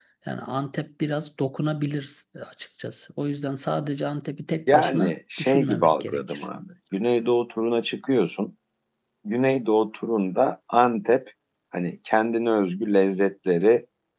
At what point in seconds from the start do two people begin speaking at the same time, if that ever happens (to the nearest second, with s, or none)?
5 s